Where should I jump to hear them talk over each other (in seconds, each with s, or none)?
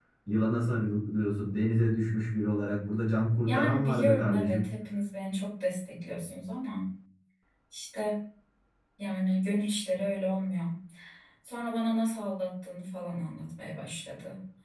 3.4 s